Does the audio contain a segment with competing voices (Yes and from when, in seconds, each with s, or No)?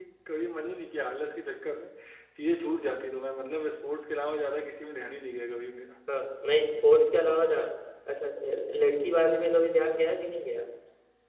No